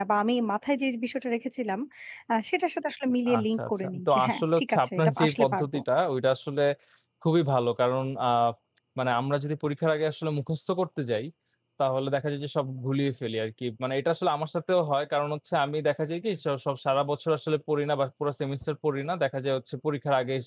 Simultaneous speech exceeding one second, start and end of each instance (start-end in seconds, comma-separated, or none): 3.4-5.8